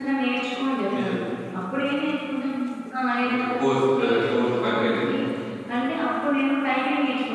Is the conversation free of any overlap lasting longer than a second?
No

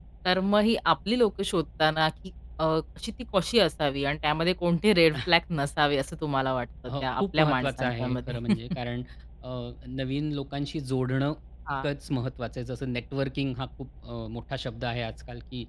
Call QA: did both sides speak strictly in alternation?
No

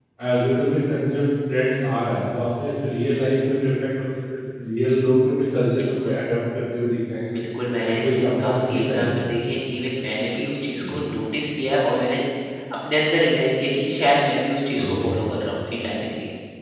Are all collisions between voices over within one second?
No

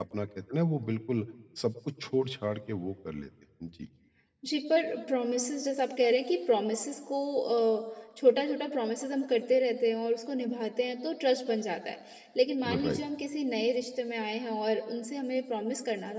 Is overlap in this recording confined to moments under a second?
Yes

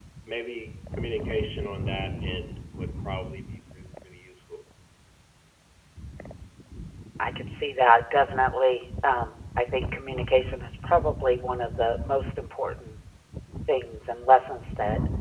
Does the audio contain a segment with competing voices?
No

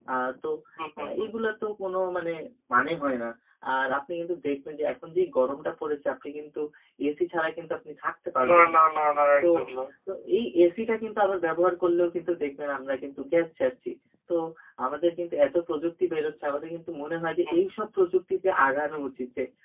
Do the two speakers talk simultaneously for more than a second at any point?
No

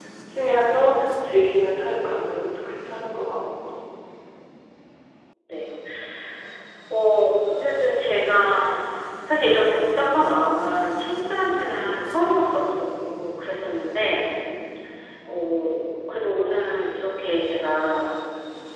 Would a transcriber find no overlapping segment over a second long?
Yes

